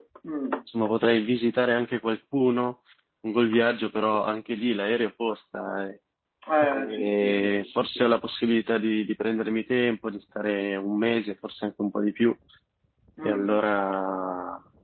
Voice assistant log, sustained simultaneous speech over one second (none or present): present